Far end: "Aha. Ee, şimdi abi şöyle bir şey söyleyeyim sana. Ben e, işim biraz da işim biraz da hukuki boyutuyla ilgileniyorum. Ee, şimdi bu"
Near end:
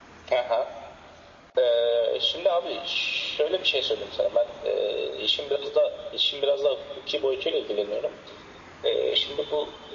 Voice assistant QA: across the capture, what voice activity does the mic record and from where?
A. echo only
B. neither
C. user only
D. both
A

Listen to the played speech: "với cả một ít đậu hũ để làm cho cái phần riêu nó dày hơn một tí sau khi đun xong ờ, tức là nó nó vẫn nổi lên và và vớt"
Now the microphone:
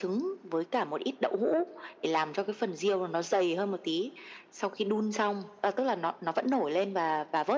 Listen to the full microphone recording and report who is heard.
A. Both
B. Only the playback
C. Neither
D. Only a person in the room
B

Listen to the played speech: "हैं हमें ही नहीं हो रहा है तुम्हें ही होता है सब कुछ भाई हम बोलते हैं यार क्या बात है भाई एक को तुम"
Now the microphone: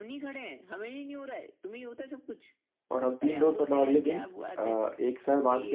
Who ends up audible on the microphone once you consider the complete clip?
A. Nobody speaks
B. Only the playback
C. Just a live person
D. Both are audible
D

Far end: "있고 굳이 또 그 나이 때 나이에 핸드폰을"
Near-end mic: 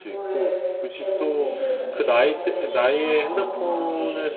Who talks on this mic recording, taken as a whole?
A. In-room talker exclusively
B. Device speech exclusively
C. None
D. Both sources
D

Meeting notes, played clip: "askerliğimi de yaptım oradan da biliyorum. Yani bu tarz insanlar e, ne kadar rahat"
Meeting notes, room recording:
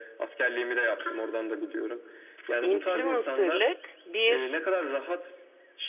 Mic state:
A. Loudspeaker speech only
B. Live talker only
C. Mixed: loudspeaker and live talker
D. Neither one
C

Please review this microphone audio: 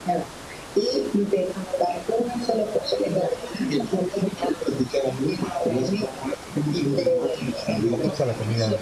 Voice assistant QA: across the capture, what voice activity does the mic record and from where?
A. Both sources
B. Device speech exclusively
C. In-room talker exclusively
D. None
A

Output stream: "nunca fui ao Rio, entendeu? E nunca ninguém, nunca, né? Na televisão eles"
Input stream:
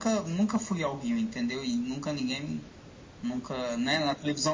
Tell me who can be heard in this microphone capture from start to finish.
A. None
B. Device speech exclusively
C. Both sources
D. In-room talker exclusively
B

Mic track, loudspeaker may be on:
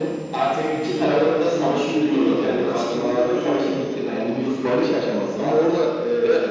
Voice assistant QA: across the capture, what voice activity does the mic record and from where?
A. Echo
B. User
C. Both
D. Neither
A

